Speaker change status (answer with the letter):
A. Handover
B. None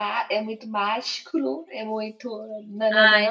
A